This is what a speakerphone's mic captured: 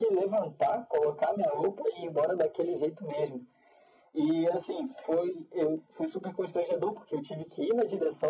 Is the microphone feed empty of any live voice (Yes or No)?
Yes